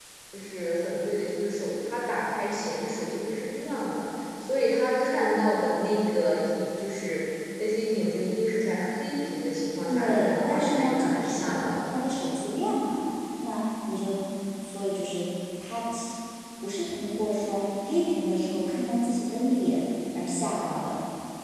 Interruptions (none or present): present